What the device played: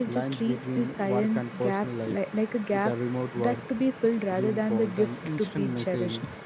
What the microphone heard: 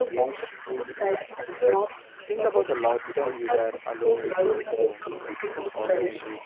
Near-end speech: present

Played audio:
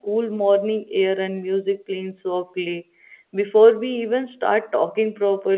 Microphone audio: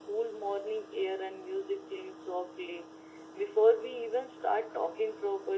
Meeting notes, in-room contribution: none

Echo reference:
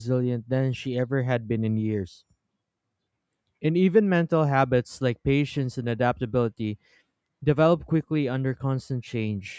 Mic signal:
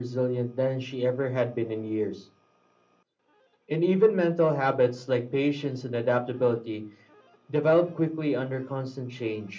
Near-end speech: none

